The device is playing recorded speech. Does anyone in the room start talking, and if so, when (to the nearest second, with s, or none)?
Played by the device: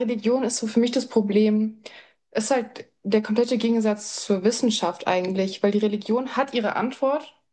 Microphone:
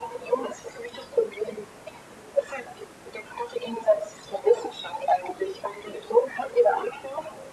none